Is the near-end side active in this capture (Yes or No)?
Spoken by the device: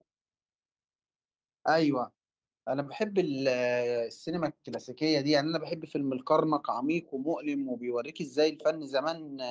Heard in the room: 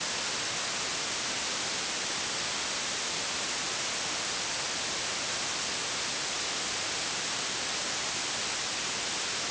No